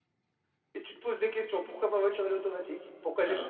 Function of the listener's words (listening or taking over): listening